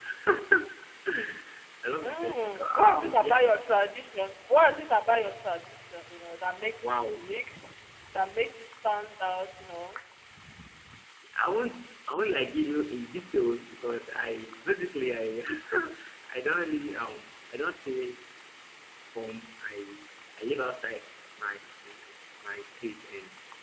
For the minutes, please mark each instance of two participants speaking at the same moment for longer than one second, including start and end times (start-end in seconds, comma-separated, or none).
2.0-3.3